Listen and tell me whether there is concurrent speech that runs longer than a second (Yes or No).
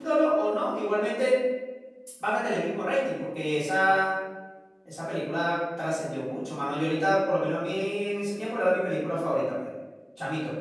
No